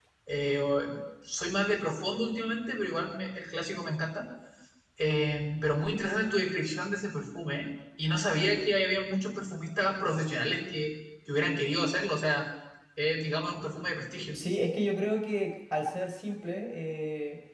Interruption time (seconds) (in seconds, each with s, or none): none